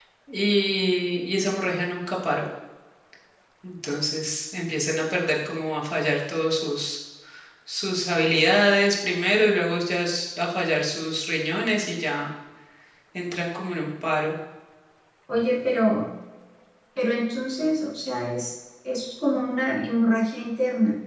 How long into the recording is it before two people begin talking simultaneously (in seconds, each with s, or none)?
none